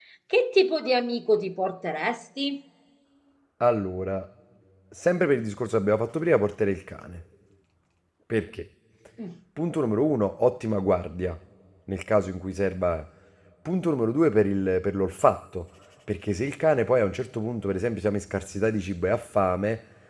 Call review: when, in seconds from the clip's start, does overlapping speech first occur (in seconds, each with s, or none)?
none